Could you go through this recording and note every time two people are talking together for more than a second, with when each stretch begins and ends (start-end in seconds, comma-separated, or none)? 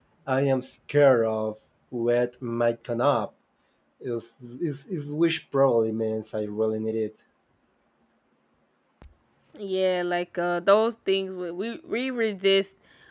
none